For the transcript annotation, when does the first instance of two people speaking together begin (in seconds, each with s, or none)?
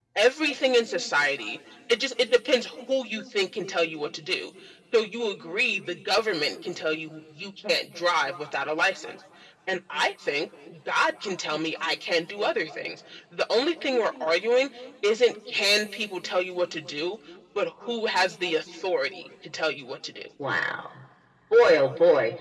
none